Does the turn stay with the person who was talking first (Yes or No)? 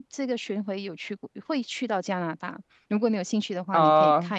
No